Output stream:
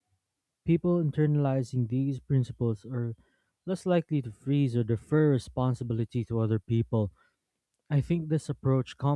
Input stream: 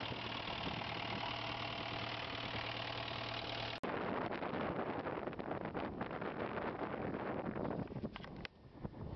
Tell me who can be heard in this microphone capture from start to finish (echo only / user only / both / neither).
neither